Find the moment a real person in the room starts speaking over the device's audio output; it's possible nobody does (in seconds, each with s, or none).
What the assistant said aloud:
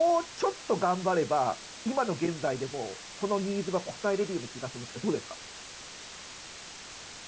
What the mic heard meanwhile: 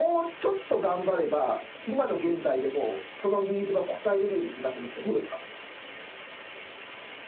none